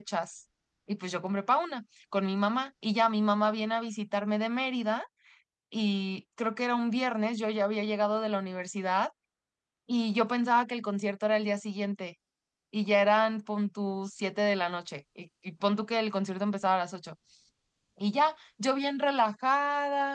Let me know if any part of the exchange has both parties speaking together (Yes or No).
No